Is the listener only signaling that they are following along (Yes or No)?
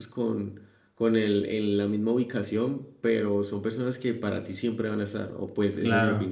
No